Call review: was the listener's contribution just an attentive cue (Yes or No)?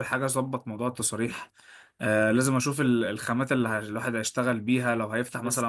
No